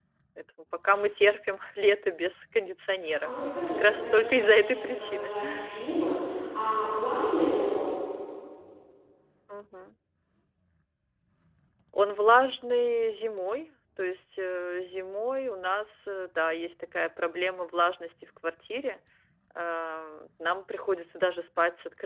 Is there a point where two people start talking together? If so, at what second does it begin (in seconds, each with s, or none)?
3.0 s